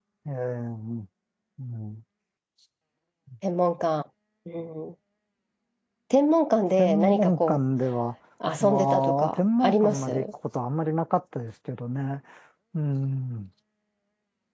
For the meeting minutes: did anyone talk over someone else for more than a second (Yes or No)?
Yes